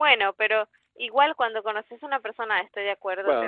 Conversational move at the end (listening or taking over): taking over